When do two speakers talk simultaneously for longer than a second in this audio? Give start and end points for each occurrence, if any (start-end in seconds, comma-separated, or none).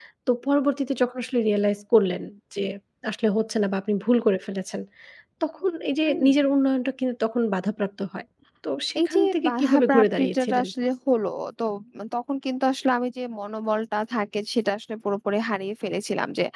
9.1-10.7